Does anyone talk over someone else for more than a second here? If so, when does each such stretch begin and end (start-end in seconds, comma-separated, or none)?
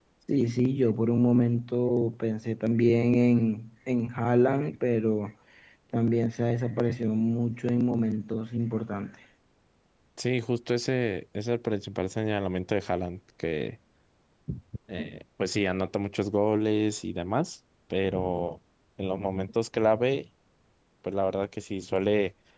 none